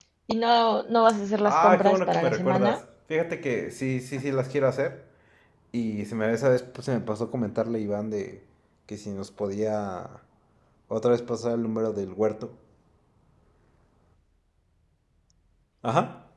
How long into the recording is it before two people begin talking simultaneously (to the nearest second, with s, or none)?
1 s